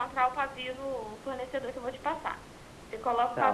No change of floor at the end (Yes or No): No